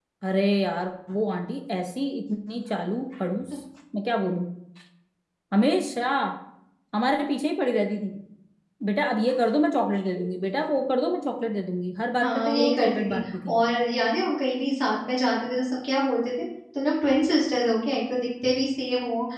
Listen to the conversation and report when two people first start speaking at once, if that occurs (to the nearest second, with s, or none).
12 s